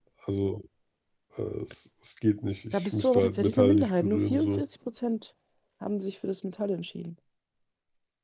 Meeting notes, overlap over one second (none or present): present